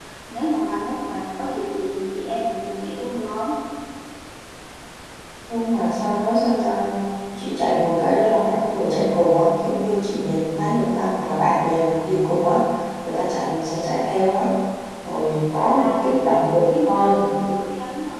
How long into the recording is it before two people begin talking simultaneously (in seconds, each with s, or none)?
15.6 s